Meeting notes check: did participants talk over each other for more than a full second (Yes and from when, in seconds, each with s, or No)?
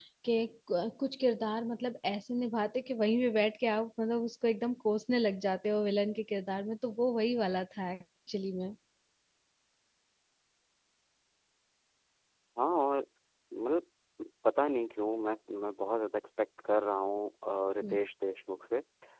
No